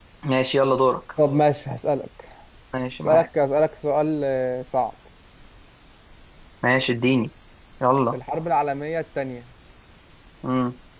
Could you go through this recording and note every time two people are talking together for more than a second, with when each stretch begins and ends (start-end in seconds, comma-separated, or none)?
none